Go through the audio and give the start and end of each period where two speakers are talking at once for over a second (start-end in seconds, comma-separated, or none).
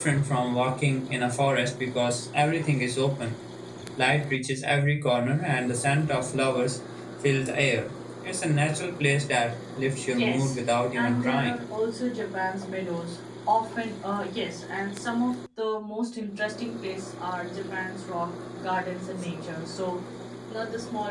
10.1-11.5